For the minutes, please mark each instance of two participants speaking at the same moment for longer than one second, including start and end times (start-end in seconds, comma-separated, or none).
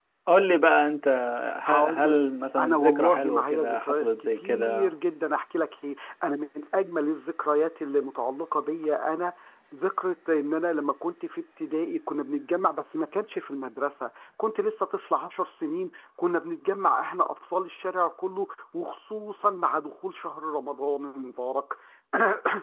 2.6-4.9